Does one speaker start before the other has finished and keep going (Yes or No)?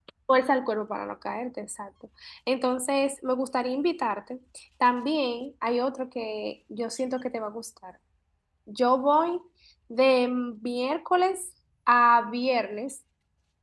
No